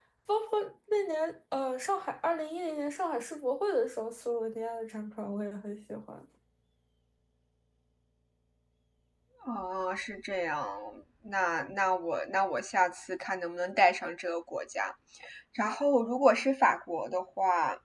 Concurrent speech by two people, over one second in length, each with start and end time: none

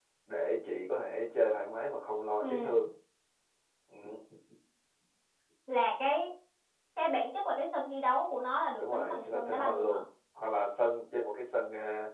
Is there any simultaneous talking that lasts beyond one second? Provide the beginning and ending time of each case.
8.8-10.0

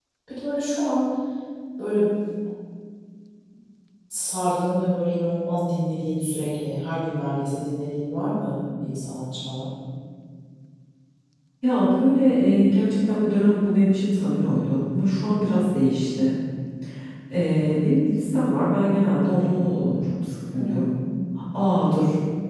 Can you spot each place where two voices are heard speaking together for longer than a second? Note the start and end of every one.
none

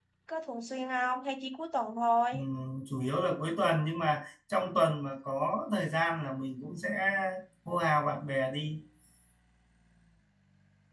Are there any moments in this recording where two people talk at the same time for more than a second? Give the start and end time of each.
none

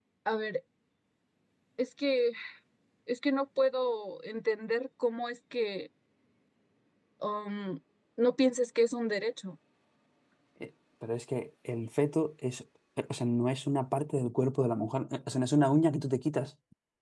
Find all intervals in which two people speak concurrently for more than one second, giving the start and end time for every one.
none

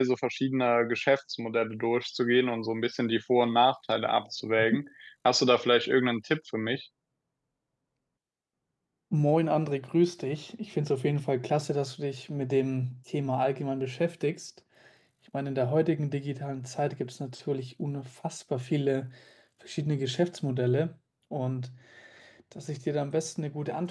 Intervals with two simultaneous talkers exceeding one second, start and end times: none

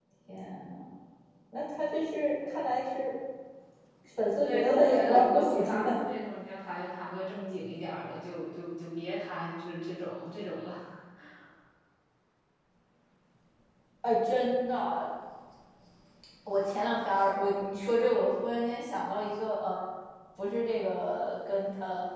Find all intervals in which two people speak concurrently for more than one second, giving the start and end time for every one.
4.4-6.0

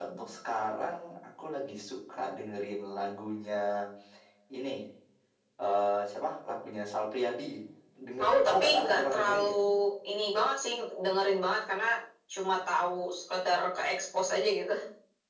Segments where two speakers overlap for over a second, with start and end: 8.2-9.5

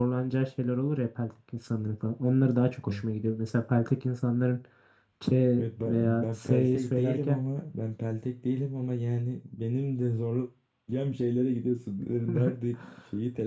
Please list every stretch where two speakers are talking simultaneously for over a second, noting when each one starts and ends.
5.9-7.4

